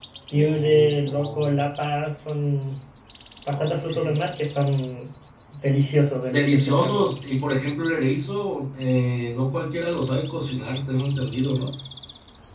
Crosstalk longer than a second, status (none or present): present